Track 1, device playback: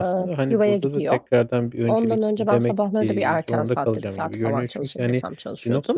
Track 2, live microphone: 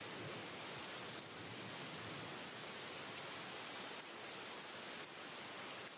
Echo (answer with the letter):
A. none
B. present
A